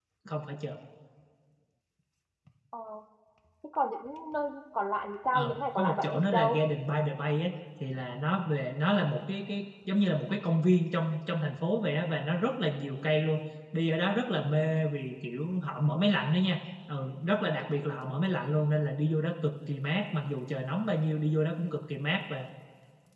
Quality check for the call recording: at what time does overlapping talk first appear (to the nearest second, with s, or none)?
5 s